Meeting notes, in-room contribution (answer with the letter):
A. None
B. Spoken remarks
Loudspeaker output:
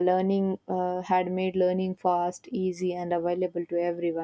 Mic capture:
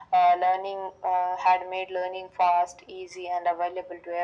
A